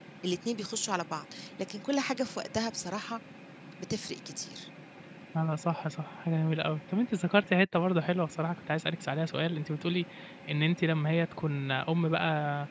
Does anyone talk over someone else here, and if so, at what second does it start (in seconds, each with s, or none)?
none